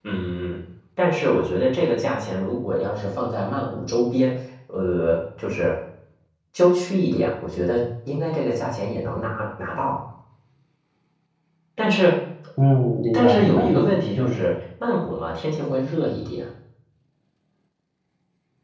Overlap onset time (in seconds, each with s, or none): 13.1 s